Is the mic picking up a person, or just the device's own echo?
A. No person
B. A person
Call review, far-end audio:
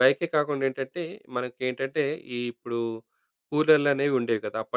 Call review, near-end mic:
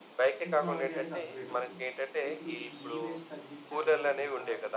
B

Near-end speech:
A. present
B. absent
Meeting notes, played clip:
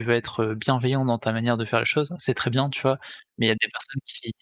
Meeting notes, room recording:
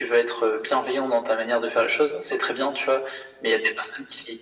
B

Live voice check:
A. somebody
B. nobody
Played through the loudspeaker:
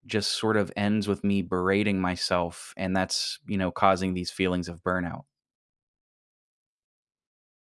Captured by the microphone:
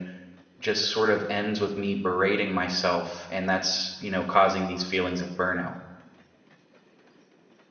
B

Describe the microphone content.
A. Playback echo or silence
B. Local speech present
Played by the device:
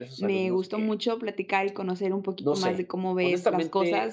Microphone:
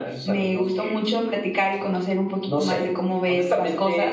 A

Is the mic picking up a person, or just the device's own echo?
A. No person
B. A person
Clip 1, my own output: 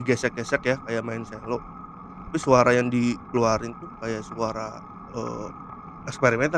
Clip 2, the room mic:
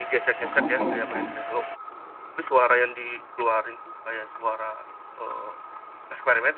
B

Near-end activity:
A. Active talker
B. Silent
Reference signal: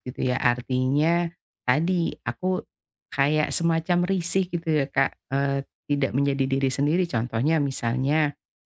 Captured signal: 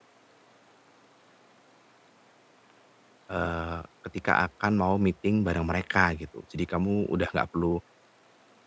A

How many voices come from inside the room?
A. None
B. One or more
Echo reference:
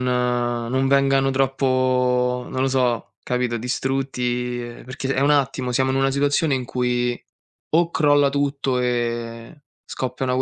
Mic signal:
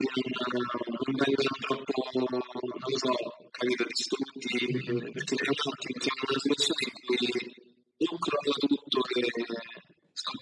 B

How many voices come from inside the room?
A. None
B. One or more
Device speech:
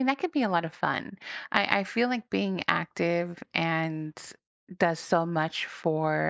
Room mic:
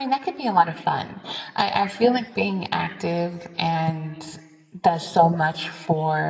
A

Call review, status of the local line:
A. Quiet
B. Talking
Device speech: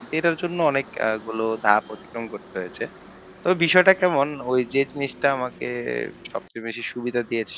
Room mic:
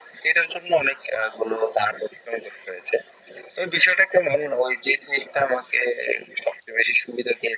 A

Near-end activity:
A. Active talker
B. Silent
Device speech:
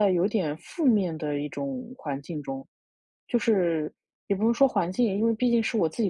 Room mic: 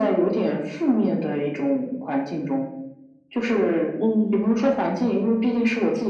A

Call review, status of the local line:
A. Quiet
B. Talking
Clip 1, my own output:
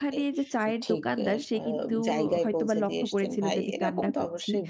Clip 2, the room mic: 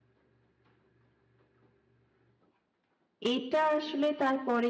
B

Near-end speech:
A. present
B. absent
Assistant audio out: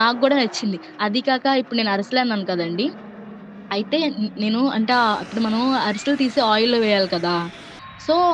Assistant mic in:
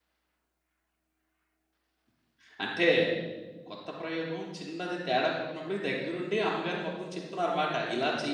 A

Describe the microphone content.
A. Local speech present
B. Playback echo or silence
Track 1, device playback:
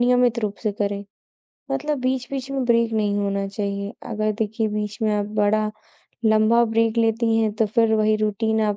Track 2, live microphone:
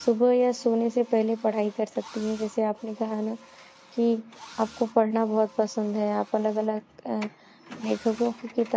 A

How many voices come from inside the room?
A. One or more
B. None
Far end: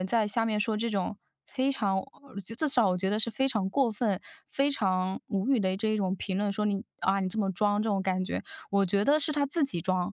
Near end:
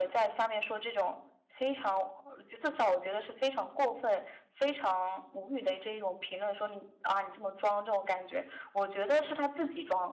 B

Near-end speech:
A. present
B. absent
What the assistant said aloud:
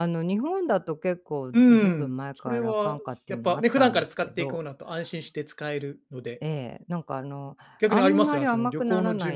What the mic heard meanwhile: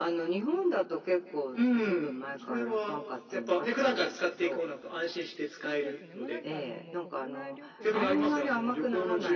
A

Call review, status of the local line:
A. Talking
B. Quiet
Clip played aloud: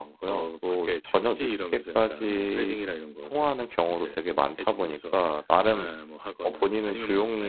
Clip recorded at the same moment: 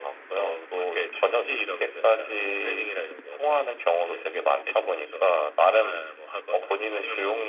B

